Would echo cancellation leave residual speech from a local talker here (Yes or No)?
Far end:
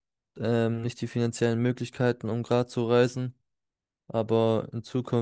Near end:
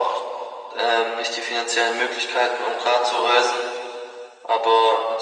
No